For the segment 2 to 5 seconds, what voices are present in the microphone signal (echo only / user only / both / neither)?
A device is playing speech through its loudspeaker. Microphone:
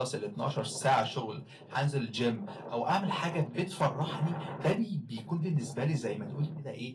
echo only